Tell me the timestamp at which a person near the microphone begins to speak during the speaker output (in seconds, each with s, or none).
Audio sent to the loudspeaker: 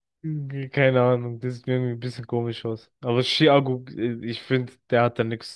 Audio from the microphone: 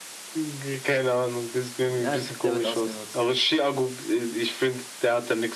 1.8 s